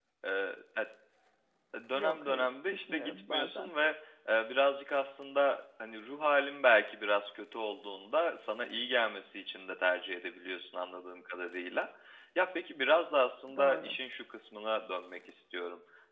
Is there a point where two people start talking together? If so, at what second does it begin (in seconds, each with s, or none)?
1.9 s